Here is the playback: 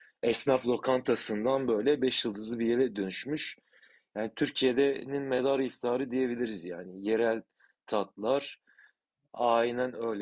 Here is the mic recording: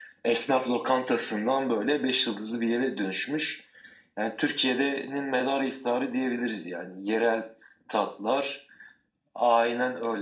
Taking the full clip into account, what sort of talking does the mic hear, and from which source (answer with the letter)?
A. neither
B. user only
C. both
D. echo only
D